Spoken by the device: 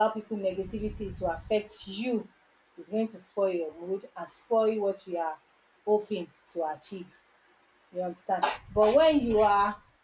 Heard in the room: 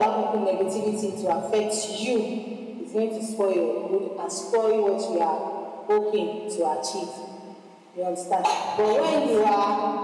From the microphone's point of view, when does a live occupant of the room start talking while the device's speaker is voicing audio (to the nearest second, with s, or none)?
9 s